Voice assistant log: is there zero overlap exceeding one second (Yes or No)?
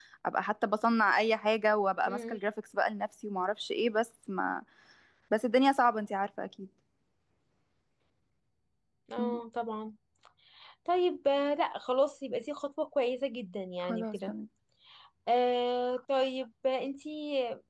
Yes